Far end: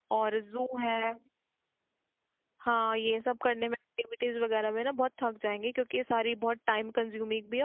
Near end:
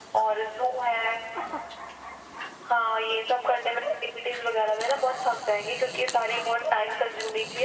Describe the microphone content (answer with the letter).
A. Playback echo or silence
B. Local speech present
A